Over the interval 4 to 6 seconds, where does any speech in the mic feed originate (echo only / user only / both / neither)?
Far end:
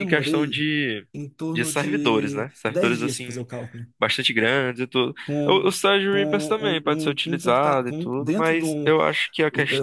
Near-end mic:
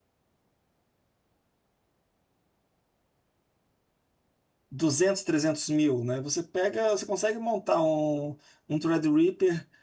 user only